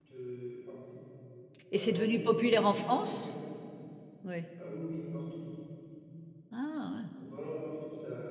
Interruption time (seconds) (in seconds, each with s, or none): 1.7 s